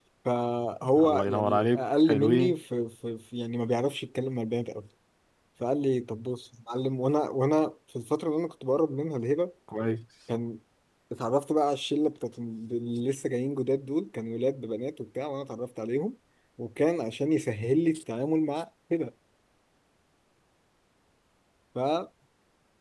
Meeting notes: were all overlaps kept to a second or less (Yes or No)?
No